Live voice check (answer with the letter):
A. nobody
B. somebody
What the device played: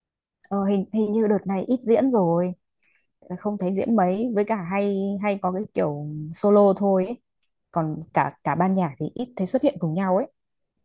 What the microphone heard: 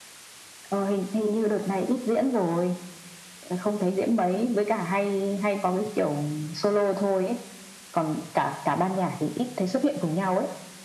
A